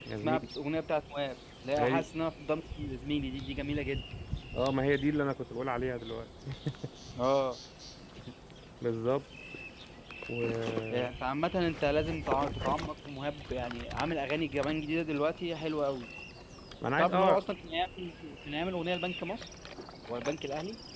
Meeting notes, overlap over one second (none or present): none